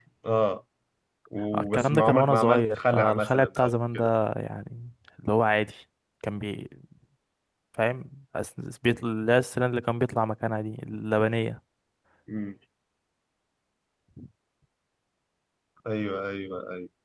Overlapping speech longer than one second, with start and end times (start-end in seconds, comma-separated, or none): 1.5-4.1